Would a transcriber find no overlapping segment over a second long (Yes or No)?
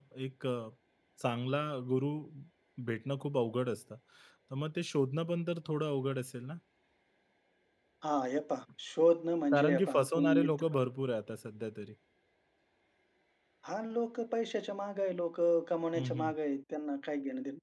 No